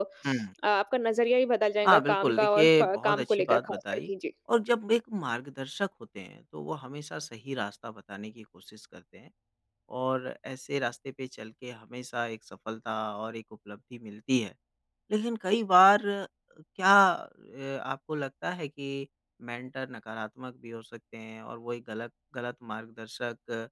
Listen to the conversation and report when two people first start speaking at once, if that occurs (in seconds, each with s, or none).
1.8 s